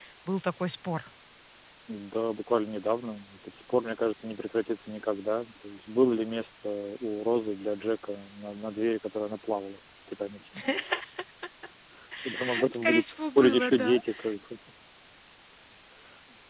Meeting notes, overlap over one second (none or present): present